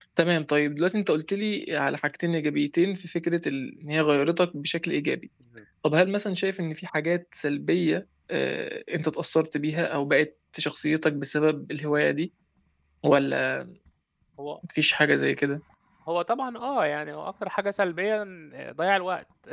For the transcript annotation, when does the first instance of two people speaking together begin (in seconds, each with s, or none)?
none